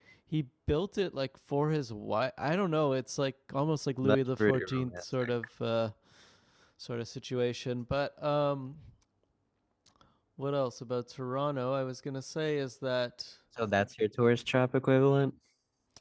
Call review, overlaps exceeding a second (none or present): present